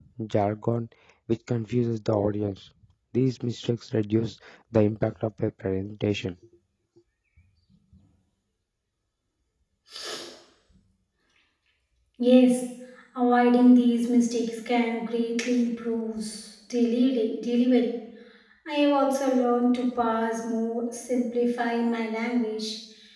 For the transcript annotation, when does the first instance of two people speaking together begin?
none

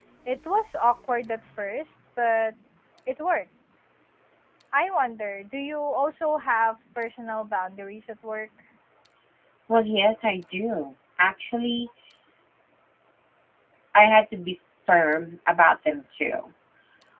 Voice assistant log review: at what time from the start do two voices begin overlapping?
none

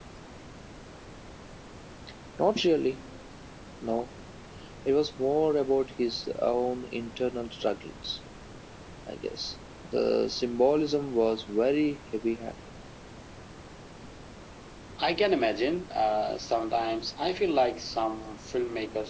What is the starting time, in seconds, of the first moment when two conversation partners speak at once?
none

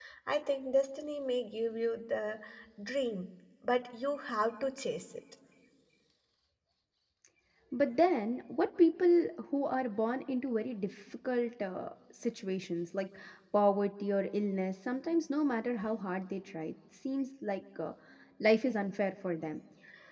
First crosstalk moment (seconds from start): none

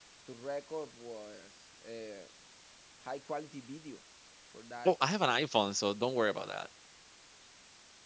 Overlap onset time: none

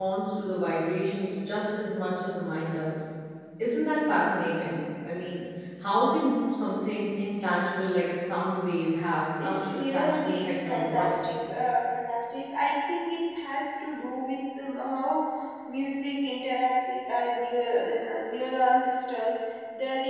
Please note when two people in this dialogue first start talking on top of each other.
9.4 s

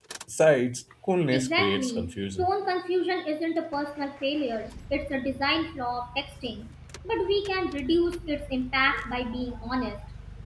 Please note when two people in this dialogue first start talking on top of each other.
1.3 s

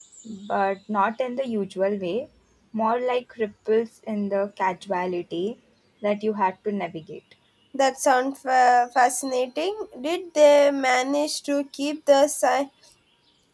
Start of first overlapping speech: none

